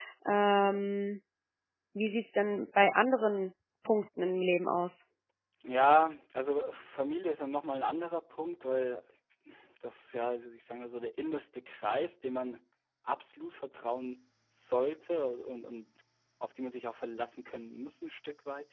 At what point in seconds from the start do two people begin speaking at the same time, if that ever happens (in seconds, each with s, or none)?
none